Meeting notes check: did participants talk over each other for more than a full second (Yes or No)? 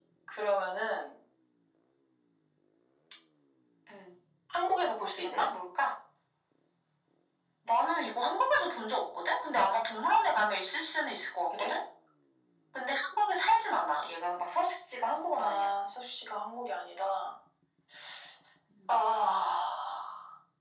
No